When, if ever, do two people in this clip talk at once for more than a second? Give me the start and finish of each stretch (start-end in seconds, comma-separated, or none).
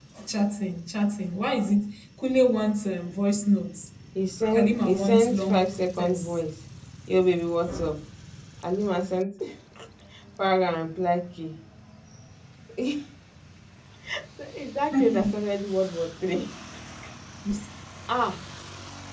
4.5-6.4